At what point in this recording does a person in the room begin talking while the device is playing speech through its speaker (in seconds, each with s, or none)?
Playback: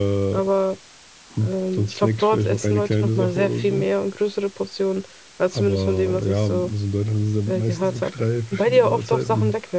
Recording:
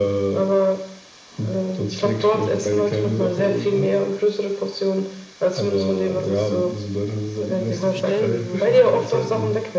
7.3 s